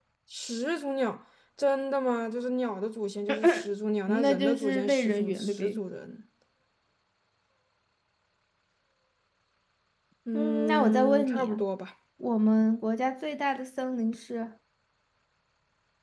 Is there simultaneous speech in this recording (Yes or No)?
Yes